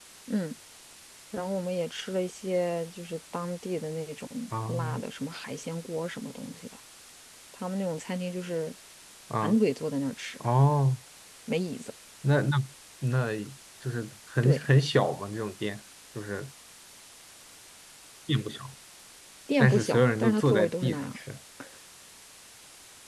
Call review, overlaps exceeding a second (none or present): present